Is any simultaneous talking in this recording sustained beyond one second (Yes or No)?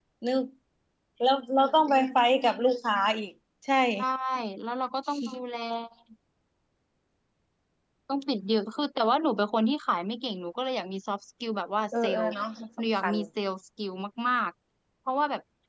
No